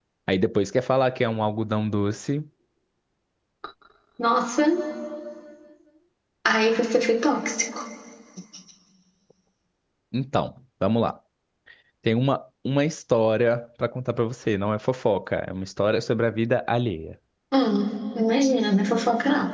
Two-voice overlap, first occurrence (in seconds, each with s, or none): none